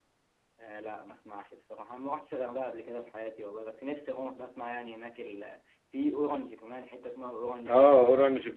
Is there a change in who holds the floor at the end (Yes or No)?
Yes